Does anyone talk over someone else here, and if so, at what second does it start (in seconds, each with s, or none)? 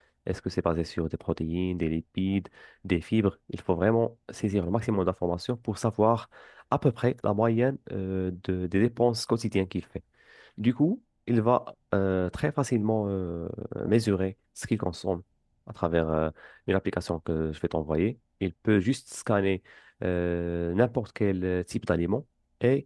none